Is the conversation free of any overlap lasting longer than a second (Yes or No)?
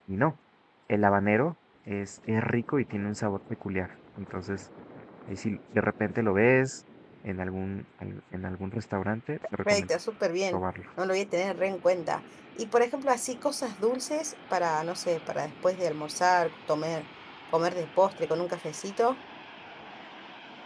Yes